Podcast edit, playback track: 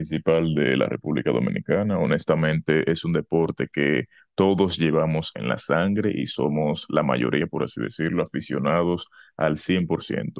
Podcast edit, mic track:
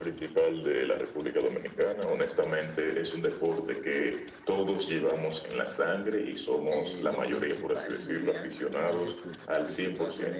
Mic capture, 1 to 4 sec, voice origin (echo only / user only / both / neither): echo only